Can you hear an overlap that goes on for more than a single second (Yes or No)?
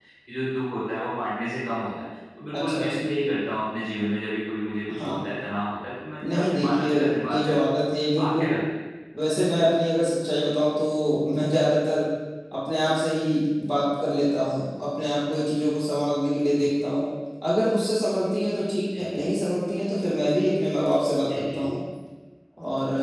Yes